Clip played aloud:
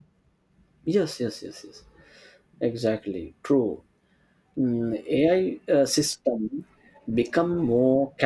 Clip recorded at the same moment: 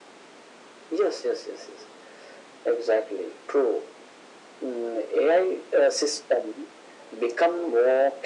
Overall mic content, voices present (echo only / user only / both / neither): echo only